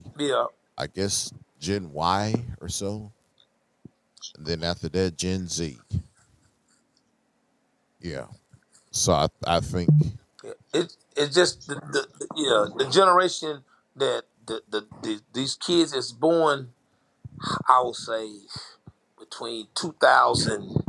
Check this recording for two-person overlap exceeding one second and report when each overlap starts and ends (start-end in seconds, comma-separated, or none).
none